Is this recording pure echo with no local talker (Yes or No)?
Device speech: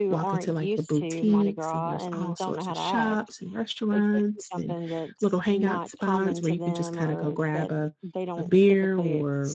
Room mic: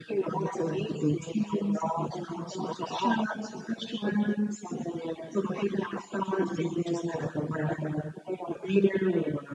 Yes